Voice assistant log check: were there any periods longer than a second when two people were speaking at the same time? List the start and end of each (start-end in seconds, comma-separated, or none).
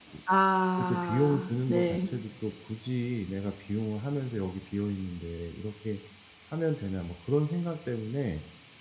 0.8-2.0